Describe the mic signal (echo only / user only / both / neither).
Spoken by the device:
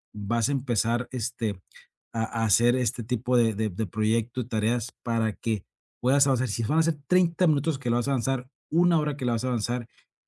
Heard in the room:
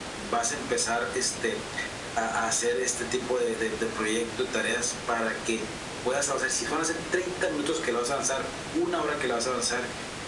echo only